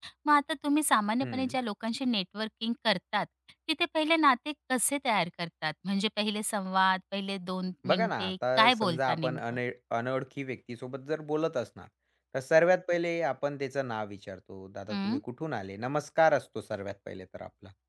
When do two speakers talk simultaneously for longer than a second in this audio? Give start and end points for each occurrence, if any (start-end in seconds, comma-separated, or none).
7.9-9.4